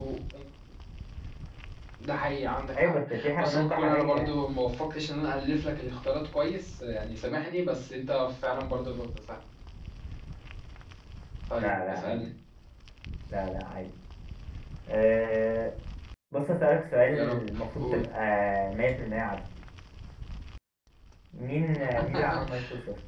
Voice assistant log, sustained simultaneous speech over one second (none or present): present